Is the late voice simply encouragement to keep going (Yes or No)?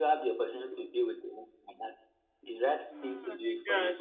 Yes